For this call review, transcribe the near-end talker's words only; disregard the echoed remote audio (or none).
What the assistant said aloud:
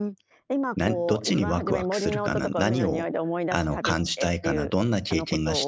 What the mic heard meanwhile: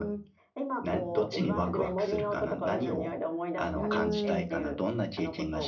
うーん、